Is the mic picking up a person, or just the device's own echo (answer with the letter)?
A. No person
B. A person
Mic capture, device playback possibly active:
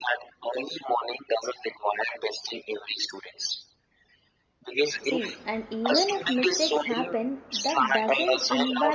B